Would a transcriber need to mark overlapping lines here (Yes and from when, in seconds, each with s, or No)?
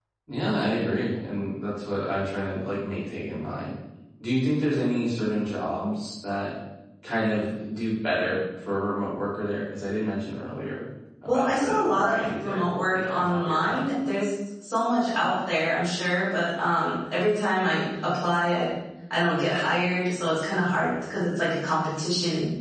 Yes, from 11.3 s